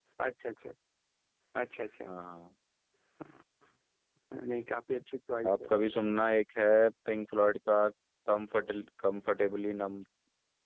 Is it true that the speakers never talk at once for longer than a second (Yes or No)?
Yes